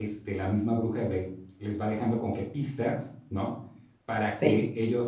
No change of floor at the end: Yes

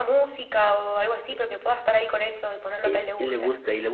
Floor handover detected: Yes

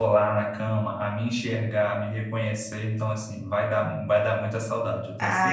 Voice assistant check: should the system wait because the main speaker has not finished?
No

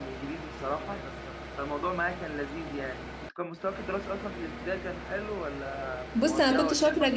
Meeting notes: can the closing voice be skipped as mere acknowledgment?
No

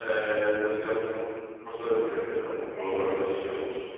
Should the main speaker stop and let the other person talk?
Yes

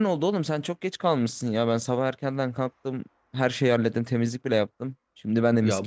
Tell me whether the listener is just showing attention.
No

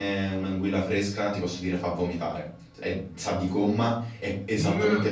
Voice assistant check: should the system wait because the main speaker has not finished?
Yes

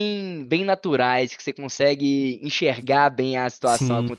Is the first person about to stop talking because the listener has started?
No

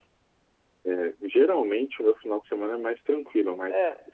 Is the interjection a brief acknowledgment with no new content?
Yes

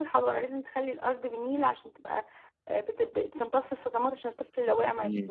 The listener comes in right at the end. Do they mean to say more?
No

